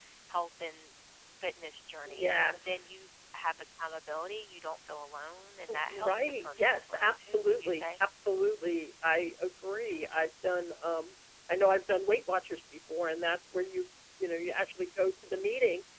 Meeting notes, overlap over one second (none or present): present